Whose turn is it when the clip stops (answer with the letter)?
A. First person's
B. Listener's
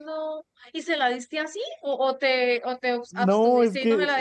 B